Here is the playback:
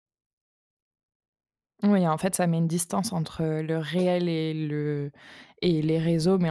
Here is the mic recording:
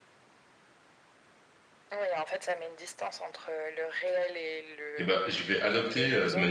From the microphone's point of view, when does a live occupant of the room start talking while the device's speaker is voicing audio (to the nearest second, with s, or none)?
5 s